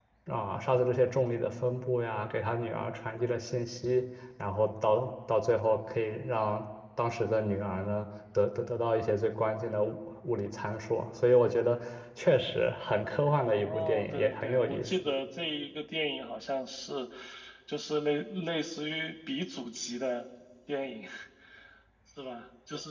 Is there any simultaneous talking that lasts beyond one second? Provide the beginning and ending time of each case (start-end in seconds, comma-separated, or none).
13.5-14.9